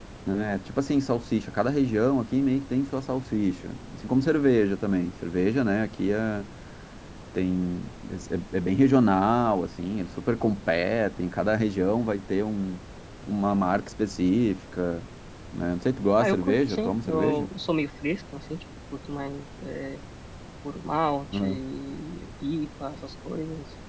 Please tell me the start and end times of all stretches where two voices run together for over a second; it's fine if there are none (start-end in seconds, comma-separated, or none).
16.2-17.5